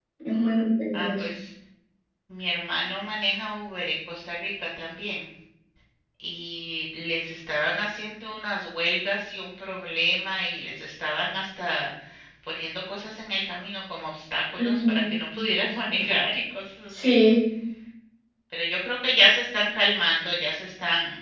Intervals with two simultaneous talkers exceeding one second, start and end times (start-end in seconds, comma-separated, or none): none